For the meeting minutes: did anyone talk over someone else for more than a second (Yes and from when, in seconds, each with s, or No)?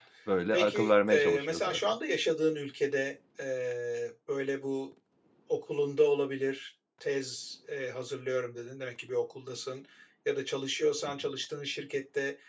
Yes, from 0.5 s